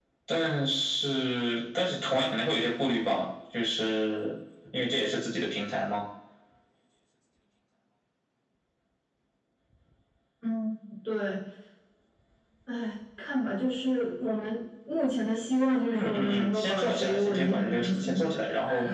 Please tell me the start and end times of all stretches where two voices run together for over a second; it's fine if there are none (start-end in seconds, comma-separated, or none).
15.9-18.2